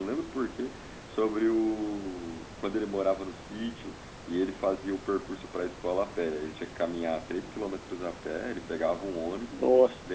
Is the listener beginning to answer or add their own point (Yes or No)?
No